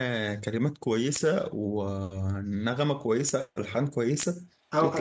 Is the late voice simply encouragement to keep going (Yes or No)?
No